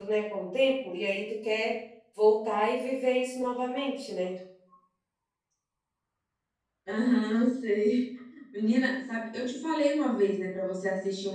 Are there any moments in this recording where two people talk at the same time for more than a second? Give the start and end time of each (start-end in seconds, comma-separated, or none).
none